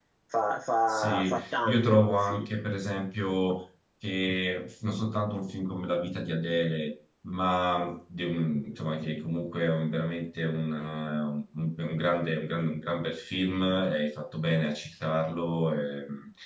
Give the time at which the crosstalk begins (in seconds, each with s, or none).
0.9 s